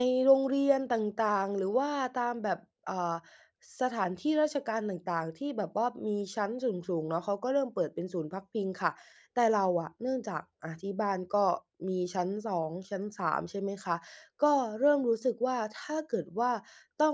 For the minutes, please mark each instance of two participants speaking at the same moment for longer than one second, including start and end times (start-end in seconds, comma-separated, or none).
none